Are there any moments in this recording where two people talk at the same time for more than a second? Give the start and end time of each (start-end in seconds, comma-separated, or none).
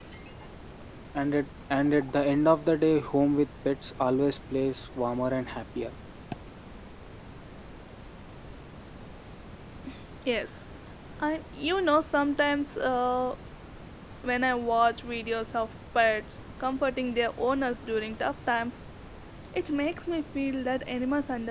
none